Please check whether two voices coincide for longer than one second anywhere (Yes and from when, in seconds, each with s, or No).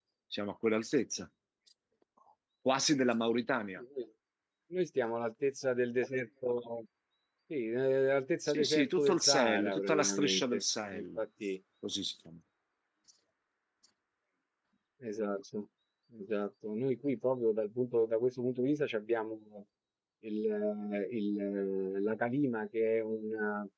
Yes, from 8.5 s